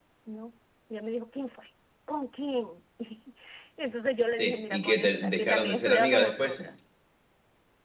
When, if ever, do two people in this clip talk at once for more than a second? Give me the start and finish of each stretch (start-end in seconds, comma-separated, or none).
4.4-6.6